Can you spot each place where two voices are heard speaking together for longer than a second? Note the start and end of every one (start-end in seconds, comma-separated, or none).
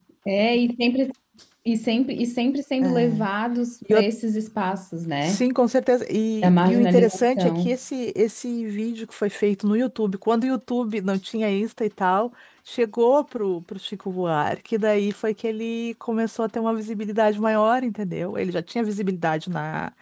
6.4-7.8